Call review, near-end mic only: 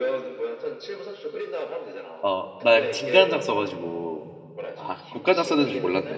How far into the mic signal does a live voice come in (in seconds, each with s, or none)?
2.2 s